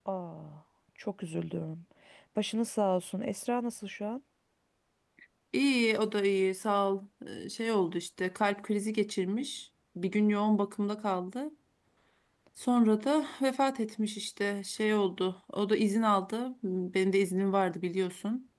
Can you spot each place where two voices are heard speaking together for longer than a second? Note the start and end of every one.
none

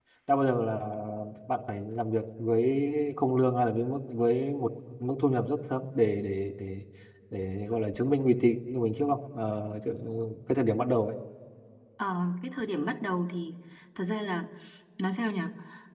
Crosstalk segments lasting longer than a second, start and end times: none

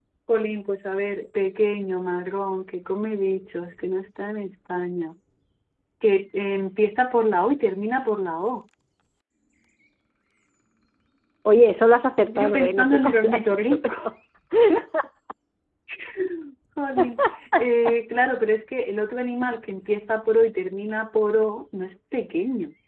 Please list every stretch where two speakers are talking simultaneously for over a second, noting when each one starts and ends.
12.2-14.0

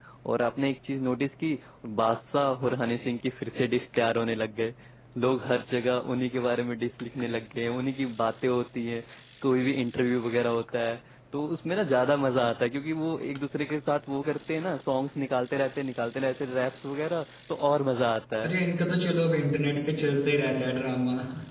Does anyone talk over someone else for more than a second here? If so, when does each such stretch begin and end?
none

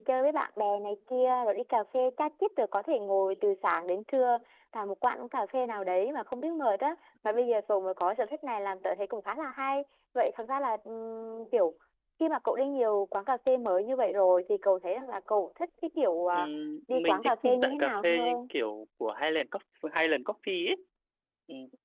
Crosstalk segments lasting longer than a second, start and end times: 16.9-18.4

